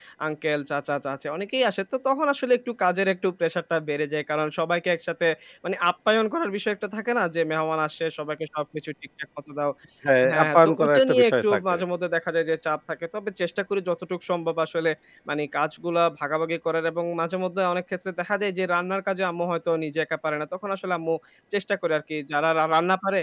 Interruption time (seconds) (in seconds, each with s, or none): 10.3 s